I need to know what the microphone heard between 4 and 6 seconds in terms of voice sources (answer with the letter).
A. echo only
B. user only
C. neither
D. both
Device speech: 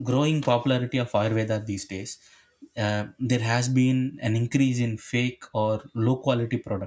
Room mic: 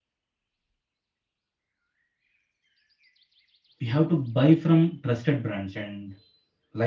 B